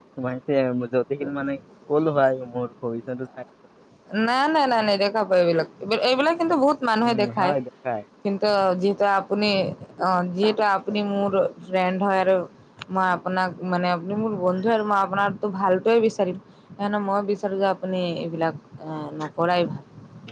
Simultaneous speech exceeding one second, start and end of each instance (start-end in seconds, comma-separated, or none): none